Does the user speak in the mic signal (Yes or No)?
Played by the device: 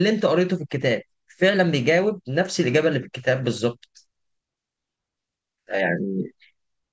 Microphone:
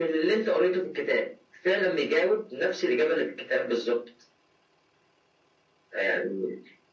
No